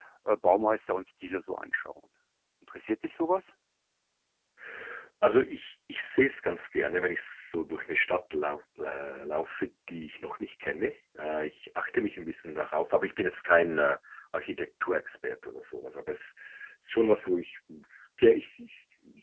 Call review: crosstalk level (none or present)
none